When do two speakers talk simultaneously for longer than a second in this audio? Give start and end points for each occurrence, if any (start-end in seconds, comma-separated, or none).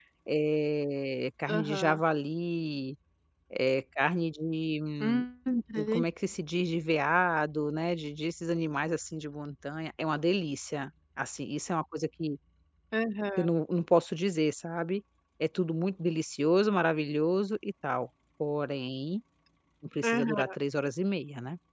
none